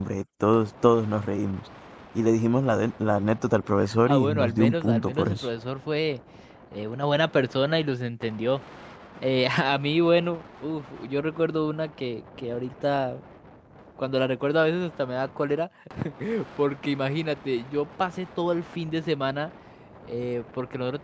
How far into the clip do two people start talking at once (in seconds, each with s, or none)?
3.9 s